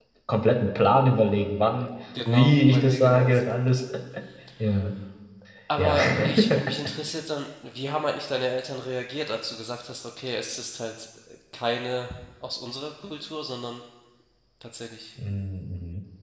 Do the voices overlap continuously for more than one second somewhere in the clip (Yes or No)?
Yes